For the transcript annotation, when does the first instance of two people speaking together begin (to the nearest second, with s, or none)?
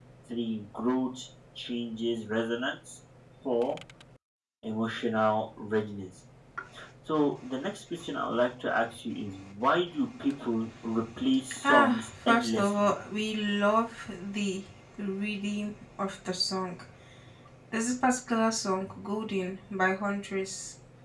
12 s